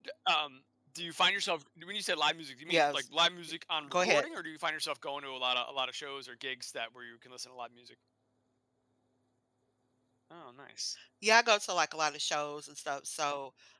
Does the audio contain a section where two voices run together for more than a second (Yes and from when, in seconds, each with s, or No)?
No